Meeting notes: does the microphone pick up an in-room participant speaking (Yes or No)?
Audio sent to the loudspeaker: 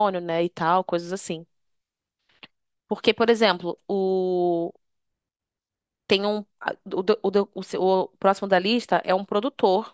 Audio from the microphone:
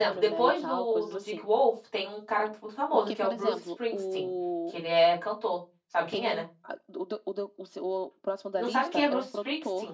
Yes